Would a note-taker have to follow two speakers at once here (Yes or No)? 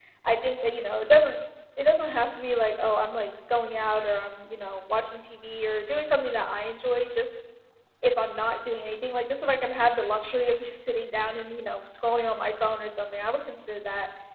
No